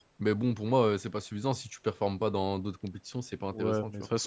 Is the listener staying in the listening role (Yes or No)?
No